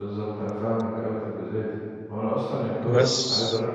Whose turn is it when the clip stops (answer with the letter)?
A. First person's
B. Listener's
A